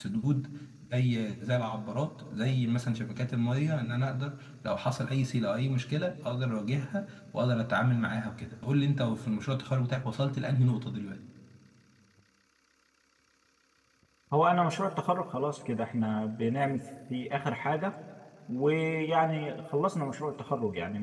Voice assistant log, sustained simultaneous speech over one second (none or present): none